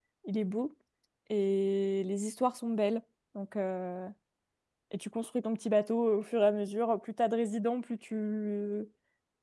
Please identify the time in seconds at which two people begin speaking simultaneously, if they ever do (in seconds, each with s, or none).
none